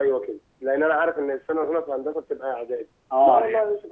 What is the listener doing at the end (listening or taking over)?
listening